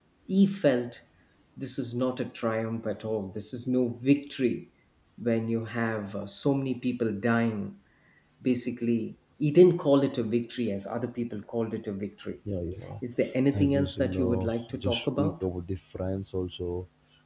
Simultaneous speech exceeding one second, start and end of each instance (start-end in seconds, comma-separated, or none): 13.5-15.3